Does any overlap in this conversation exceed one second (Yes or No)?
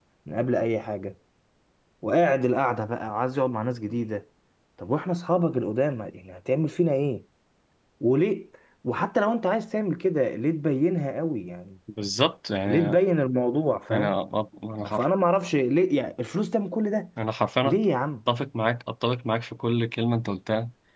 No